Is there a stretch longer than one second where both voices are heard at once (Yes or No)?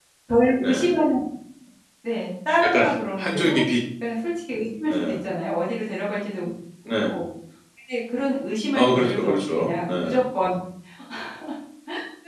Yes